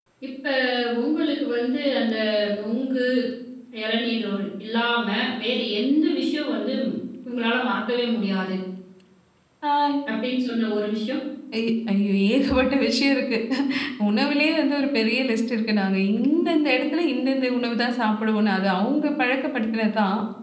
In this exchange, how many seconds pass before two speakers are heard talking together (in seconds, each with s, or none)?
none